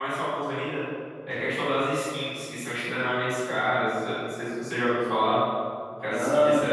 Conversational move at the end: listening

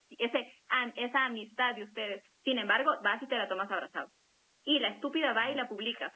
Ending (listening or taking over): listening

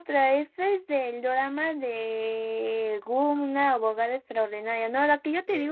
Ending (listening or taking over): listening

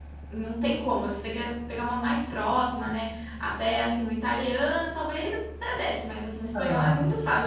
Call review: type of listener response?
listening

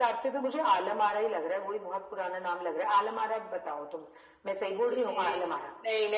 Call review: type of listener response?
taking over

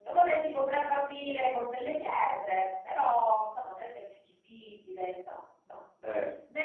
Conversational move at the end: listening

